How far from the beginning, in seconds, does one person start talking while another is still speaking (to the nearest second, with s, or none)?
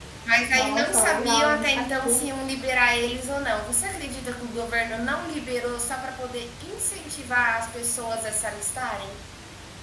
1 s